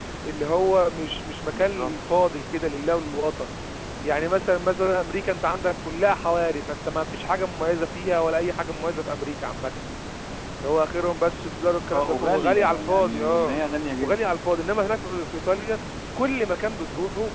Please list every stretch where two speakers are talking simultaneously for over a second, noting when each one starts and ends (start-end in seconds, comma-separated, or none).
11.9-13.6